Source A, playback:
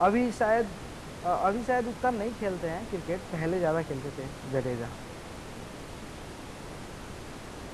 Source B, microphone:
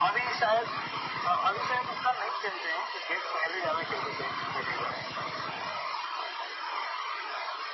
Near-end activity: none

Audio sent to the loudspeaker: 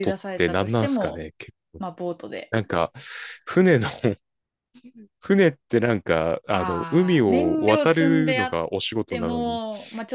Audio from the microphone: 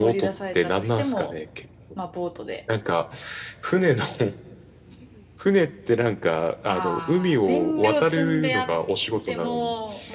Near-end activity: none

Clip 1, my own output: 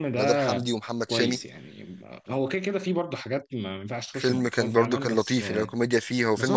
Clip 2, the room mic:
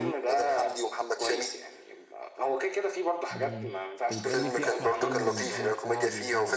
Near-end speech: present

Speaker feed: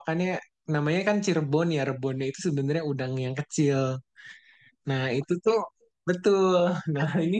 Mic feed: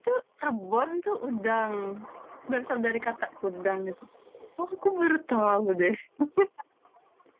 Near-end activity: present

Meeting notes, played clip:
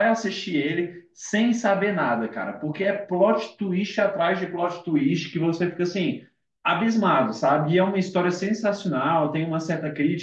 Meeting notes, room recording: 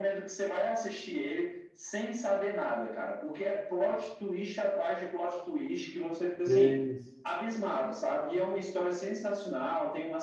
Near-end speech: present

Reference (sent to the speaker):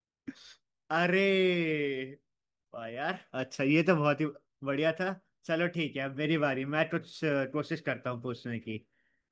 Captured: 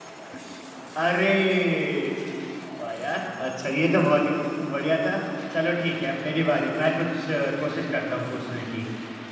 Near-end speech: none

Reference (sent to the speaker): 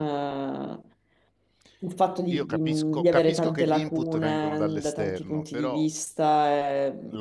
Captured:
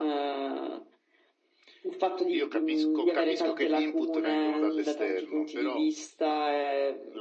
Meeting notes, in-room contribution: none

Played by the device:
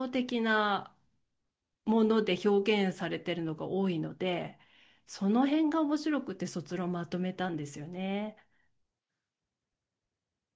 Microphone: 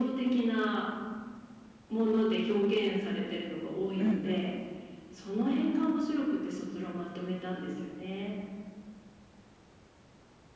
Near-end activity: present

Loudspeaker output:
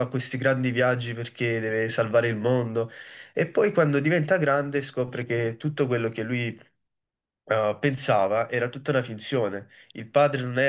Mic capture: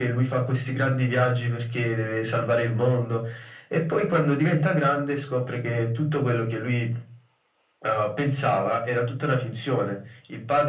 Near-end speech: none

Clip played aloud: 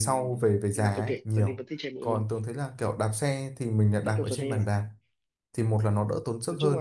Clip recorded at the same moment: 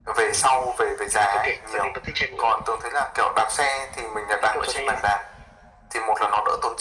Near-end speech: none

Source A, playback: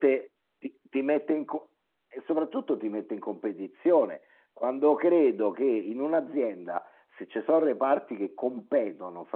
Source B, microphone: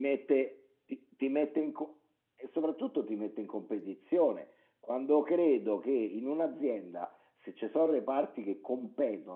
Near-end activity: none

